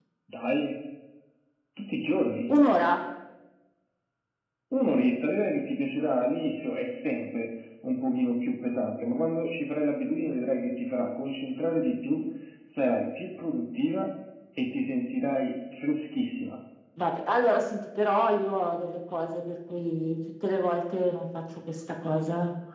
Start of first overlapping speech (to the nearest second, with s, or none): none